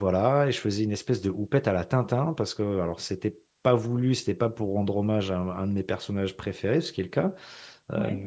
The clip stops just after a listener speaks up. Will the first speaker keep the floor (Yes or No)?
Yes